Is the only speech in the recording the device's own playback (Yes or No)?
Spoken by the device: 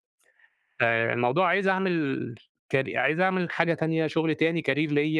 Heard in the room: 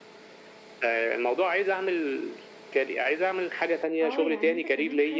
No